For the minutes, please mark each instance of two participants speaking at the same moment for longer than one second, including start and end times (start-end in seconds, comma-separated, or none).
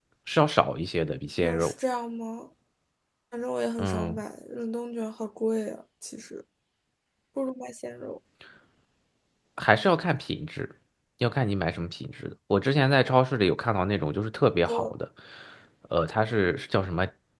none